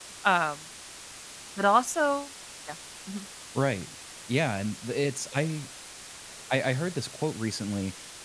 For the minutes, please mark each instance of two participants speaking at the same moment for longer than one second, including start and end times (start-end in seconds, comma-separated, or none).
none